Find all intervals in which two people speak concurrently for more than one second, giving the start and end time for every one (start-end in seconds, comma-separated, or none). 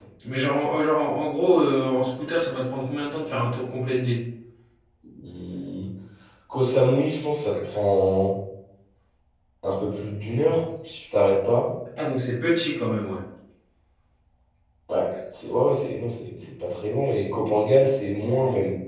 none